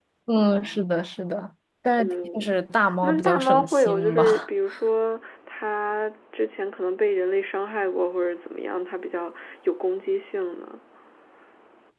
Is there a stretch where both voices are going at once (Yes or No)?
Yes